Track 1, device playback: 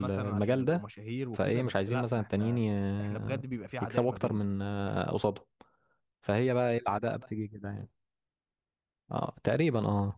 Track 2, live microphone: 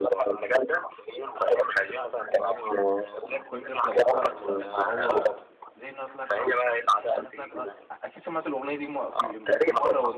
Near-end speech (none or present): present